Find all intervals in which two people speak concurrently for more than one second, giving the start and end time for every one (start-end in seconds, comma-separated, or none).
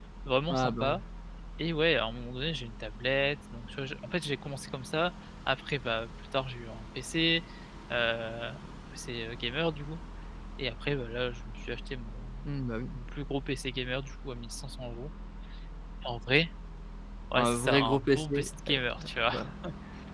17.4-18.8